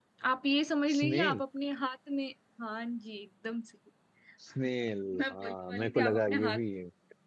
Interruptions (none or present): present